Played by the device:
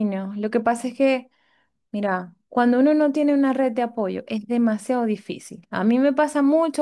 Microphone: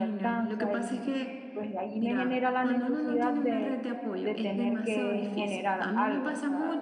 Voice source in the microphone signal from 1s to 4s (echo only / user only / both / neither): both